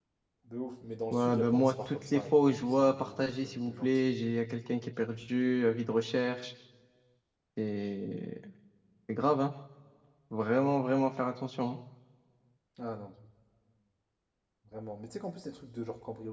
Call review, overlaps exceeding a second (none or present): present